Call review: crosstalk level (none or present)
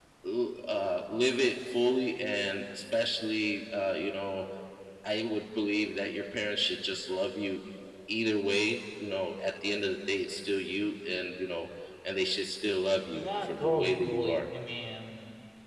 present